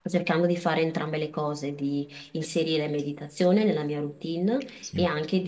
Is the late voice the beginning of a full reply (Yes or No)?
No